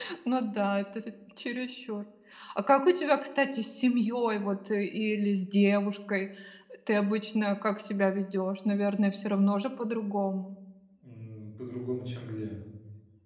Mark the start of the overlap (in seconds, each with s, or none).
none